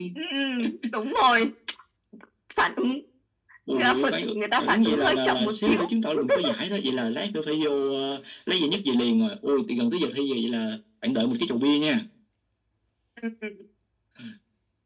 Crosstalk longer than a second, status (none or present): present